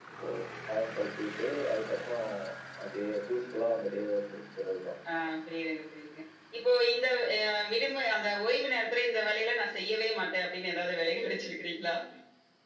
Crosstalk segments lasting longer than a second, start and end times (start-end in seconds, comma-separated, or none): none